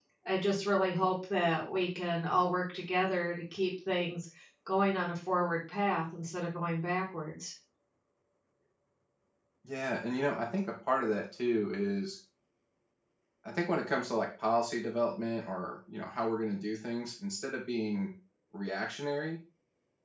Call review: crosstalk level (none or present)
none